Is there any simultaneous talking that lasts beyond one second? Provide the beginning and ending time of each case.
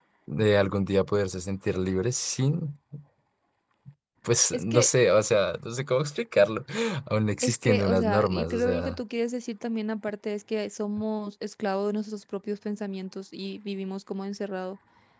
7.4-9.0

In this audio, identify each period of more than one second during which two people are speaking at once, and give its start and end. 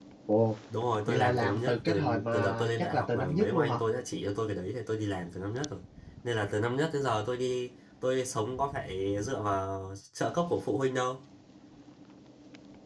1.1-3.8

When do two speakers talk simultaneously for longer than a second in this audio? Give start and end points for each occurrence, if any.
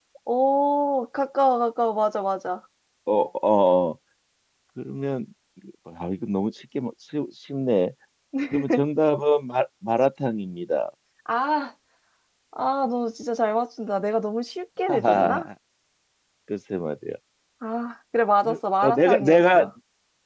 18.4-19.7

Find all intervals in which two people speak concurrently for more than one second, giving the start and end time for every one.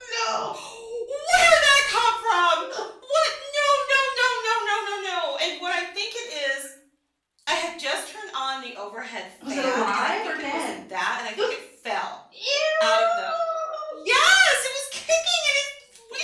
9.5-10.8

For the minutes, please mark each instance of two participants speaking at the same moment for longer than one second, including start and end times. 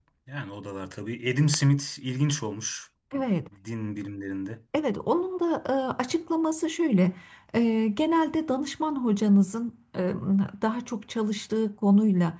none

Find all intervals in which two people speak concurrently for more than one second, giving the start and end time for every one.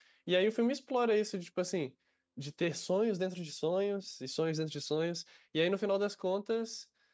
none

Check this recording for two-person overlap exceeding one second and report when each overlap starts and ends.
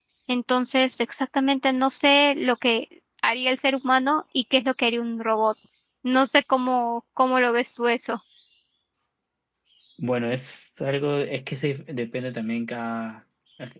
none

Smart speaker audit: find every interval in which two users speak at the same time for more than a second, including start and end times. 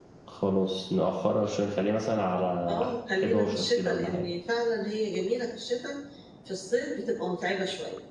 2.7-4.3

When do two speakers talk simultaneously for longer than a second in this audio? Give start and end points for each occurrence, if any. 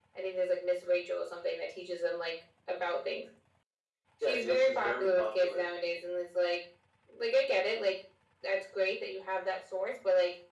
4.2-5.6

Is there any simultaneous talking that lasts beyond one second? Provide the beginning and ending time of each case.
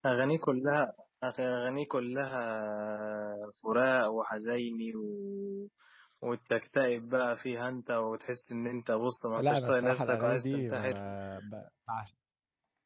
9.4-11.0

